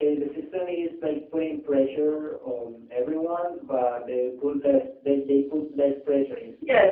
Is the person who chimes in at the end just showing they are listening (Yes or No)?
No